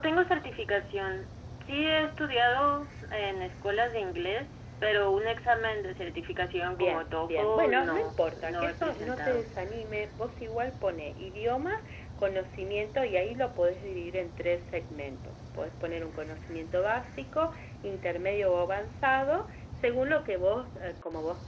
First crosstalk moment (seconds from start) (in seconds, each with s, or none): 6.7 s